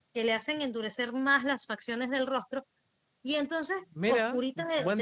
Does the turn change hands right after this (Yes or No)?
Yes